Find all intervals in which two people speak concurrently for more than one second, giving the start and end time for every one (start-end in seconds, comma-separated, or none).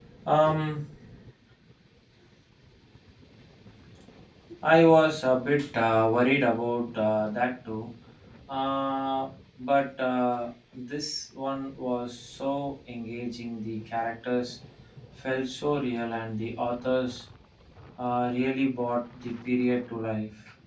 none